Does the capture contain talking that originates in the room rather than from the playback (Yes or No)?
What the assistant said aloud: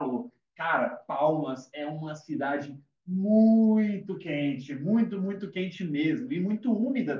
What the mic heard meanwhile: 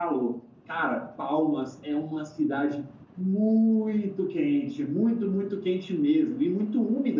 No